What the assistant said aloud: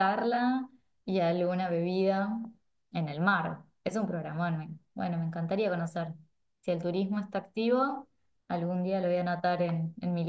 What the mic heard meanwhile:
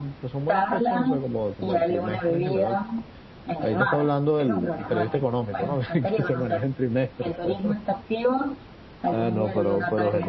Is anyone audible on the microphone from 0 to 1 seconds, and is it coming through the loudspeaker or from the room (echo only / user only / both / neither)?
both